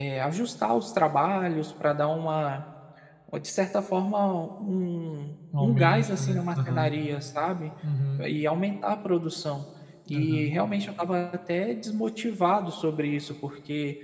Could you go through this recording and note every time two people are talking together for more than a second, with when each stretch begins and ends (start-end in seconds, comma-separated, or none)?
5.6-6.9